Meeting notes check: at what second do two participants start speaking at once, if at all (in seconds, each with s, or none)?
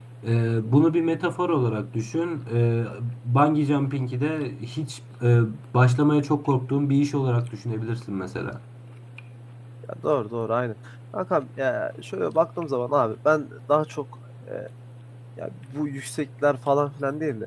none